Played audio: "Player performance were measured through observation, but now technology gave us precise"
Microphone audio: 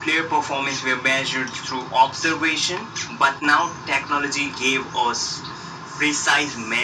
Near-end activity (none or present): none